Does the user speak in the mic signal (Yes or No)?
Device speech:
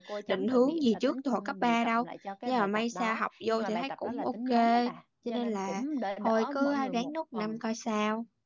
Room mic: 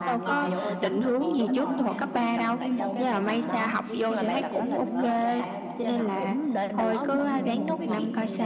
Yes